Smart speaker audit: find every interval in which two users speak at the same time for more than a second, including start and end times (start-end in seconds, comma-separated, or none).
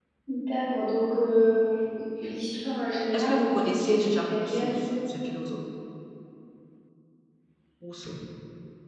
3.1-4.8